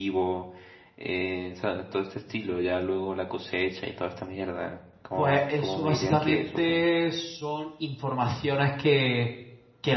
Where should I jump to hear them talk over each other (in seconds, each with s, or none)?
5.2 s